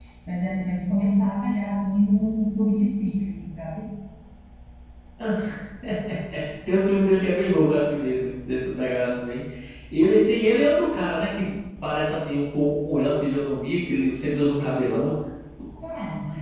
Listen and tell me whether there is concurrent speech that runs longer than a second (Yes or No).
No